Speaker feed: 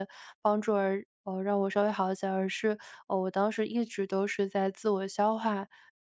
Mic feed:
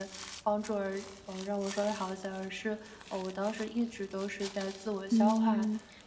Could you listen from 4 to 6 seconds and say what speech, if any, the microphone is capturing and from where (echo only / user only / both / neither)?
both